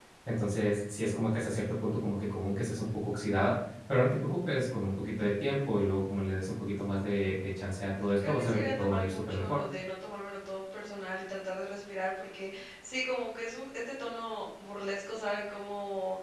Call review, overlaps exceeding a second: present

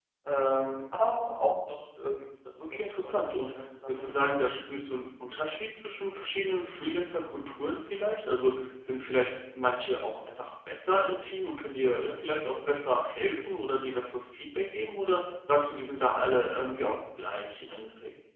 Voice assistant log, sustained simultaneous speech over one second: present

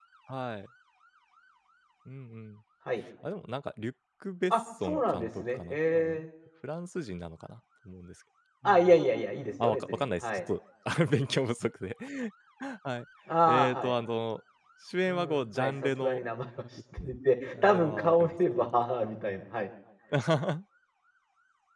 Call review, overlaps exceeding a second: present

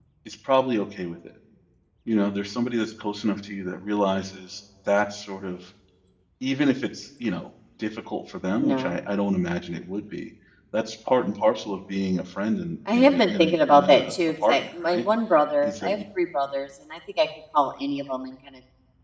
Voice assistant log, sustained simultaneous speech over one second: present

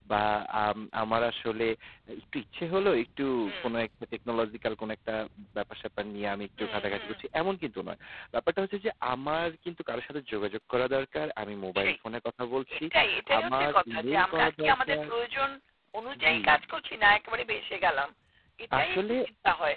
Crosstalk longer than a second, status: present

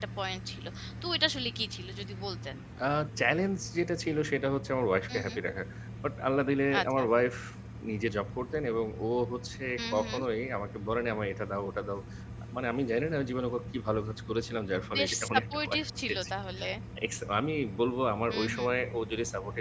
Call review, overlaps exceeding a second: present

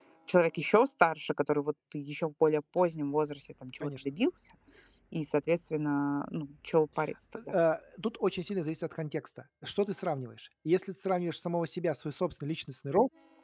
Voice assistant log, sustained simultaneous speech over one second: none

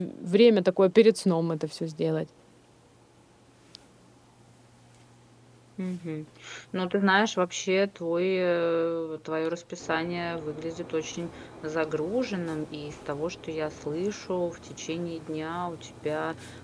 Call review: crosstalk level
none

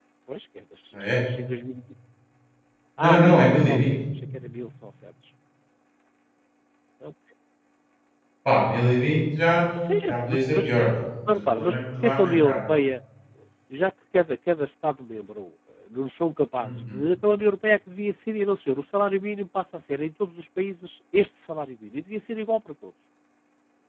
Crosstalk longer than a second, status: present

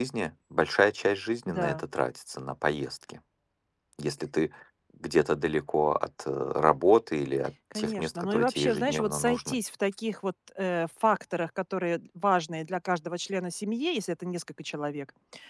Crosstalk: present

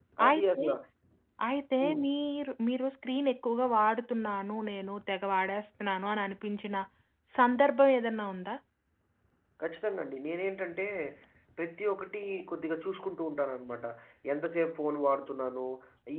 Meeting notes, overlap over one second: none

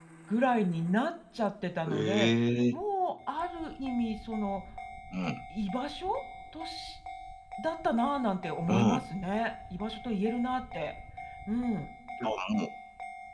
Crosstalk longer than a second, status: none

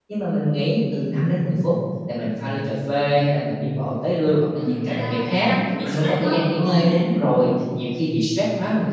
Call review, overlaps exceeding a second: present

